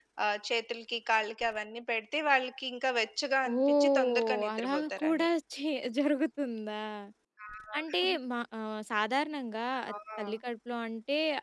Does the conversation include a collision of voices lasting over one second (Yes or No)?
Yes